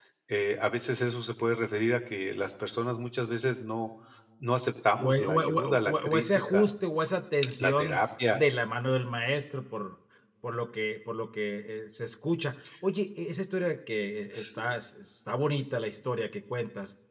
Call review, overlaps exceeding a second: present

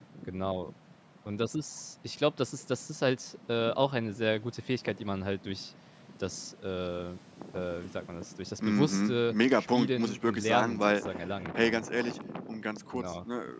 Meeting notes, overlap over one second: present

